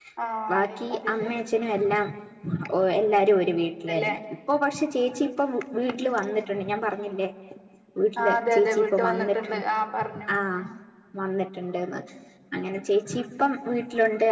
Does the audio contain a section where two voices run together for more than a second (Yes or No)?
Yes